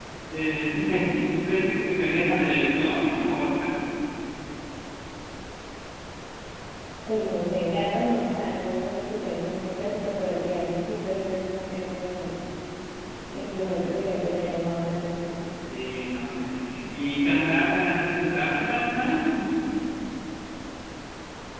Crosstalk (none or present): none